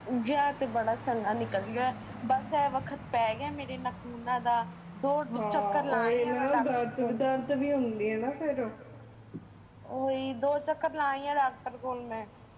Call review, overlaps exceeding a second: present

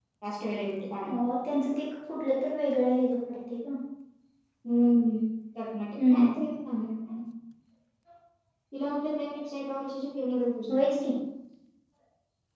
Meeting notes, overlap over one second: none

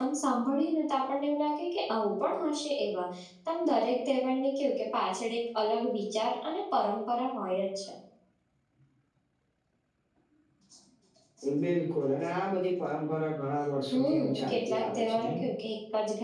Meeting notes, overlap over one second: present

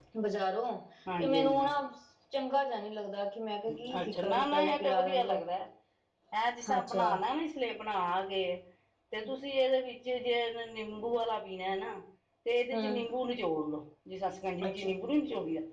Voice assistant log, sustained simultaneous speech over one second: present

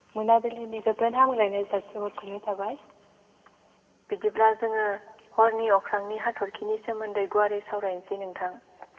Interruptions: none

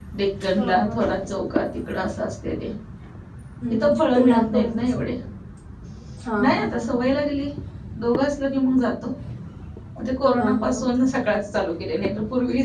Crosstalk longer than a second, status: present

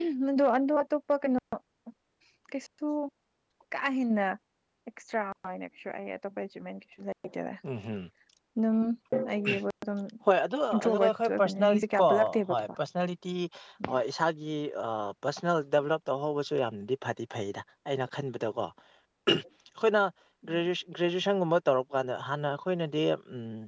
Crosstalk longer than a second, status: present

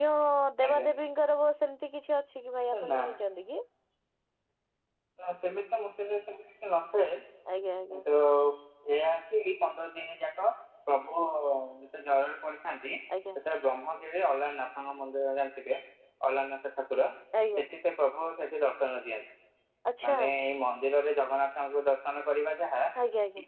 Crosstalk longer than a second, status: none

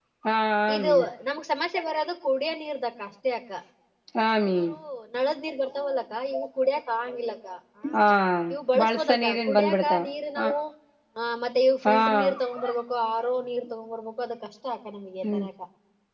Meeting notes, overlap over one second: present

